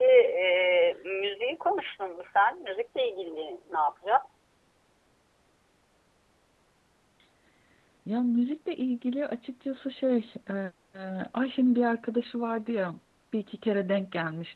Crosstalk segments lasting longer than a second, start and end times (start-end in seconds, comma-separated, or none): none